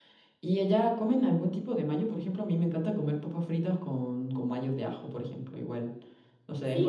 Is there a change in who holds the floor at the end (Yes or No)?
Yes